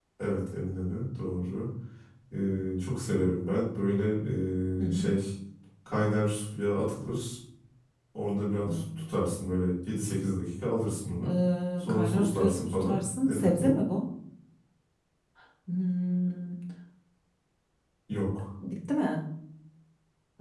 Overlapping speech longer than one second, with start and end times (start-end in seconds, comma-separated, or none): 11.8-13.8